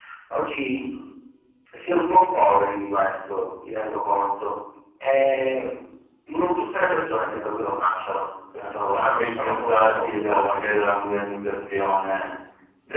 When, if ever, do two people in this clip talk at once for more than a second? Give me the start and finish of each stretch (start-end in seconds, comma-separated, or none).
8.5-10.6